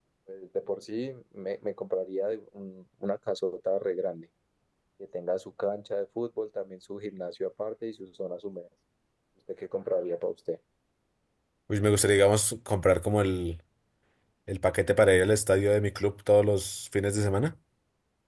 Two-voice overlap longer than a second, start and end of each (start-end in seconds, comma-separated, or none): none